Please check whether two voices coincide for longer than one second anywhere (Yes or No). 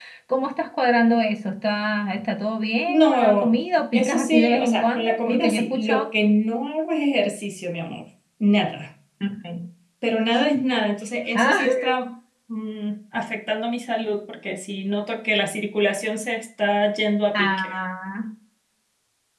Yes